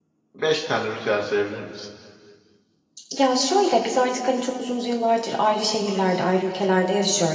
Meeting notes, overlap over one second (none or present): none